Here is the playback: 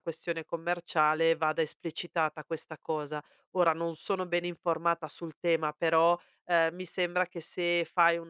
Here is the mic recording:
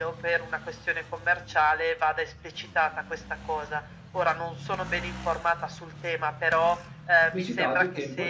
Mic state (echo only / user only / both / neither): both